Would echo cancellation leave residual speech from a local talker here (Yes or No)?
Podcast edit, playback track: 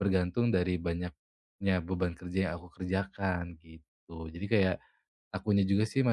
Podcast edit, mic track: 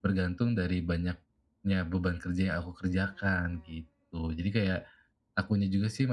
No